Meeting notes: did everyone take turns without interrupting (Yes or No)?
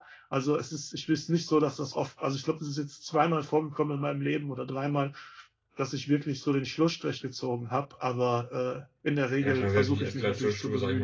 No